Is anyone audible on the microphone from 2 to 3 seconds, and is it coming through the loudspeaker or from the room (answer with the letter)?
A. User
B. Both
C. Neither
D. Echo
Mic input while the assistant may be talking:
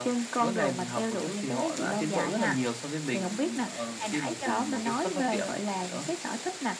D